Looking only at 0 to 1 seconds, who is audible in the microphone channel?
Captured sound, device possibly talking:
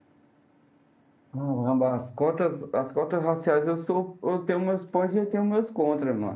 neither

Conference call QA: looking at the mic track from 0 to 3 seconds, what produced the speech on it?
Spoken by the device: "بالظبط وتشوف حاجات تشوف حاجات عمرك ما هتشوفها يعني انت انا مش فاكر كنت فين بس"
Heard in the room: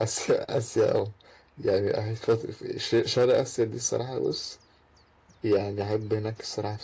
user only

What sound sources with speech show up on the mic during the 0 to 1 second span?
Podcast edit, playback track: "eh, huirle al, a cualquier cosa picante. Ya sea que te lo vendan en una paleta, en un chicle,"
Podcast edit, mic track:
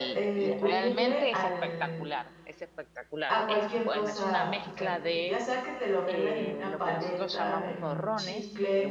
both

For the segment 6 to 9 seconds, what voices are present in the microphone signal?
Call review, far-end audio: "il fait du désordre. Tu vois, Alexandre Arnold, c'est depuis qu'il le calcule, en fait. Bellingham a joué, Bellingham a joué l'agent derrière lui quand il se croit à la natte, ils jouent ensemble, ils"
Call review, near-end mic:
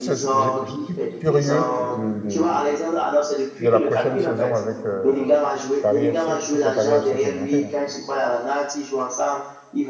both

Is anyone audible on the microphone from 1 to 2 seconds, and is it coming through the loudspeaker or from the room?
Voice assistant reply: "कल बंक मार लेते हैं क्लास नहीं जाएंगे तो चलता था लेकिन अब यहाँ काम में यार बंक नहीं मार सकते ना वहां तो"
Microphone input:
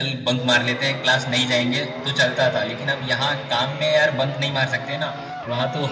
echo only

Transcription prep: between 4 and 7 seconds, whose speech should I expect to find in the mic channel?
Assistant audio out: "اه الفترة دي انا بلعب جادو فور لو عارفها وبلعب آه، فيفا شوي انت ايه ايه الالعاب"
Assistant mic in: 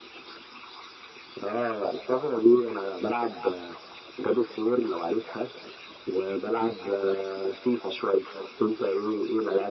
echo only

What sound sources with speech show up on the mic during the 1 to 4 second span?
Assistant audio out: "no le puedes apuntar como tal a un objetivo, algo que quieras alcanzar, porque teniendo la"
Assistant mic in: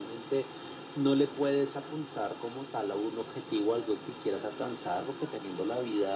echo only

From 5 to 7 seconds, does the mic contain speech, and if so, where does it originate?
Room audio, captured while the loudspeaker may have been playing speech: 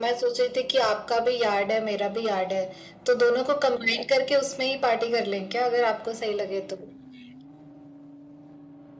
echo only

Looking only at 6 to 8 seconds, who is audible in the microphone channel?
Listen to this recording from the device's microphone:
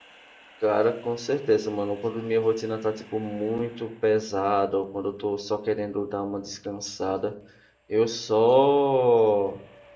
user only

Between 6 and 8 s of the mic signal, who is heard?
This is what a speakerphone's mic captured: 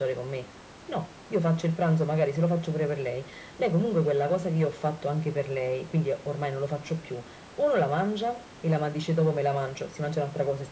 echo only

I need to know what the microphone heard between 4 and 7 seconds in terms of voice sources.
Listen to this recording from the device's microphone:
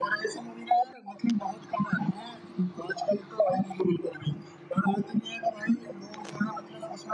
echo only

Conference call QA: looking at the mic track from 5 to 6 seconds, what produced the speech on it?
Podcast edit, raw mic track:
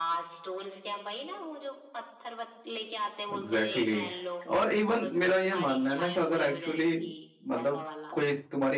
both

